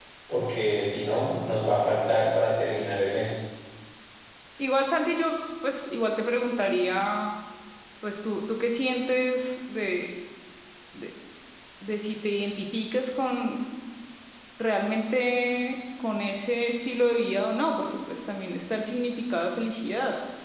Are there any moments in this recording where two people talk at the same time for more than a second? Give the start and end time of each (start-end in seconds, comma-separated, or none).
none